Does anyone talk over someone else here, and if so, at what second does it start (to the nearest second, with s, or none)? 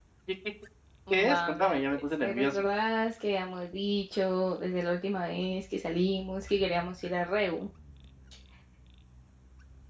1 s